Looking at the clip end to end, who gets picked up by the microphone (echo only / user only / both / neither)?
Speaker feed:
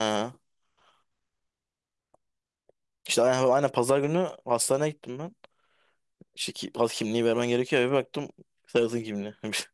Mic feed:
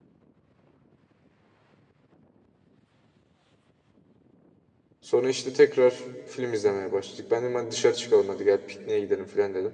user only